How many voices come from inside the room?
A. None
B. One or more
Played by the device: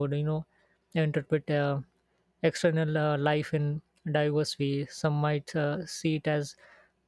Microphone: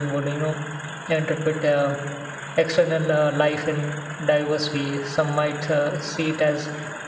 A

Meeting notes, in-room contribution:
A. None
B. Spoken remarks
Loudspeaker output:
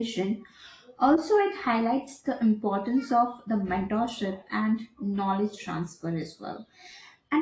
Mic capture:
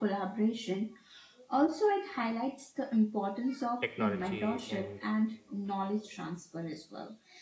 B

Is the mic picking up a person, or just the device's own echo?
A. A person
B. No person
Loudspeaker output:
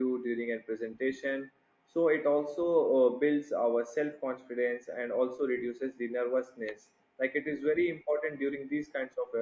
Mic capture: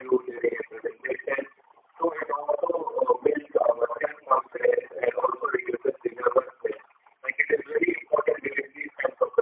B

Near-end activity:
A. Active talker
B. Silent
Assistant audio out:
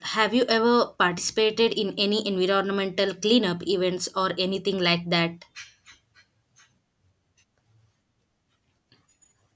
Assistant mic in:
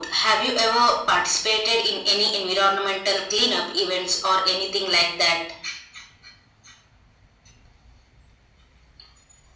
B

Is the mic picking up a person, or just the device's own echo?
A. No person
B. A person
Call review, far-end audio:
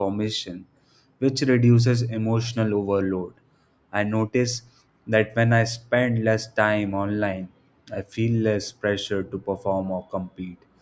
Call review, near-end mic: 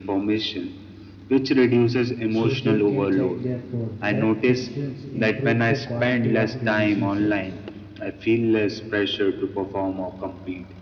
B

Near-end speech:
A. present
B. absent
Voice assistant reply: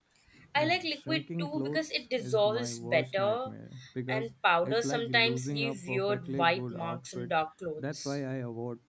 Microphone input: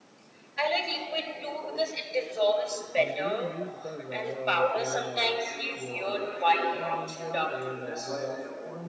A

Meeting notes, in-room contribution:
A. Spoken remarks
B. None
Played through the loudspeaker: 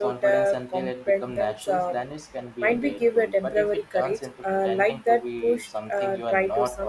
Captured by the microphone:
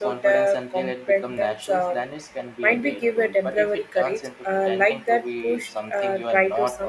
B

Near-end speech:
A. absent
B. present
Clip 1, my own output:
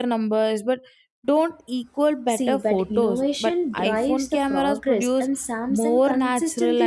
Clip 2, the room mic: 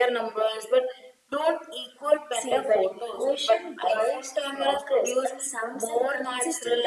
A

